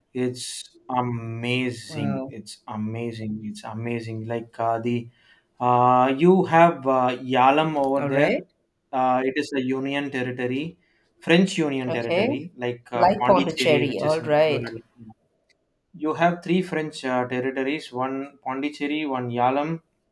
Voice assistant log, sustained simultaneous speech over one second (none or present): present